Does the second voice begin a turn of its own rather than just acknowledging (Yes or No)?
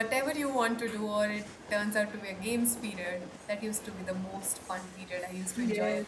Yes